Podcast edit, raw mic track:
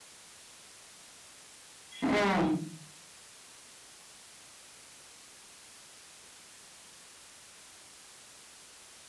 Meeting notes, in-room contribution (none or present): present